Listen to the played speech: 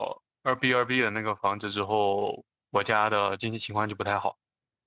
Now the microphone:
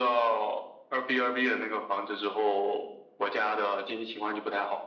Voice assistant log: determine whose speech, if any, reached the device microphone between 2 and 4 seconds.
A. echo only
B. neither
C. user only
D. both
A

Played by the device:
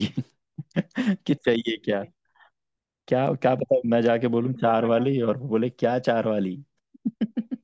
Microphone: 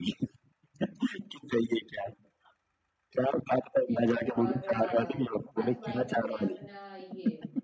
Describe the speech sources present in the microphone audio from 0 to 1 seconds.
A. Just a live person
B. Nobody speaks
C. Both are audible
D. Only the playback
D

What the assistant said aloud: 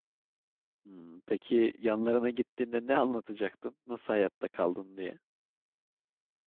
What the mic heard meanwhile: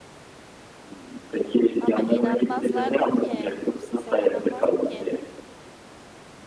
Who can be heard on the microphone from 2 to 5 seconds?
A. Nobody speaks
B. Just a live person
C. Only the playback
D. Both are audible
D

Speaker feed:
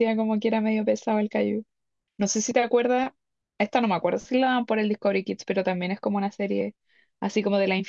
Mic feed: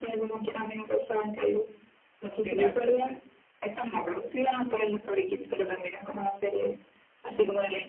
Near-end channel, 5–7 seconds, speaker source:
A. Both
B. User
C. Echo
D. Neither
C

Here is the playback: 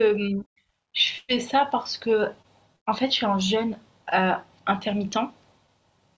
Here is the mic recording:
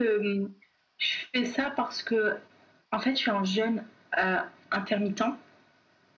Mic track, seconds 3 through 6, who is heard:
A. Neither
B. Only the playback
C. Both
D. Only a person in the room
B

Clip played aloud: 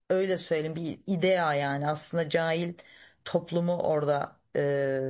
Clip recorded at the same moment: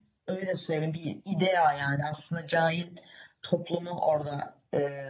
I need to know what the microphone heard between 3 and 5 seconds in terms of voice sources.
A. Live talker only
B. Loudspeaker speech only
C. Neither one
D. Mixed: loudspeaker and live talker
B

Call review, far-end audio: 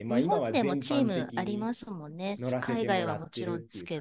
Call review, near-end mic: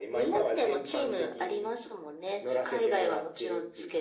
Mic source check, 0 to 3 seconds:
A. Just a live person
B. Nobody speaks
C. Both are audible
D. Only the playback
D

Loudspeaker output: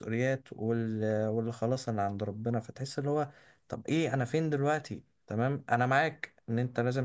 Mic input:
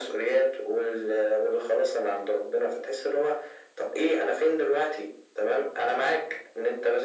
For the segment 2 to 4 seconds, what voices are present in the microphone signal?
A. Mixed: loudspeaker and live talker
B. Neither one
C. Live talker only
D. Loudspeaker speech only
D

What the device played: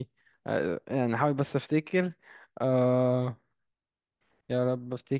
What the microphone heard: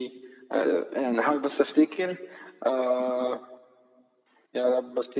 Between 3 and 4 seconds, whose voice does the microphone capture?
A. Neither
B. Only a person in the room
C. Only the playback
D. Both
C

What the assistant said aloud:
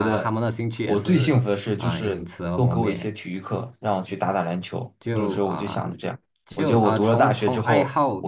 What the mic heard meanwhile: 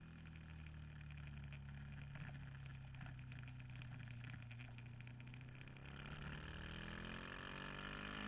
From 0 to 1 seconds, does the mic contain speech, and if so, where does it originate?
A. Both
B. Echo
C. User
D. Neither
D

